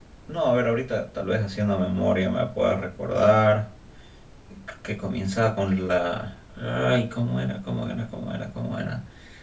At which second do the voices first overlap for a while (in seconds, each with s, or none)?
none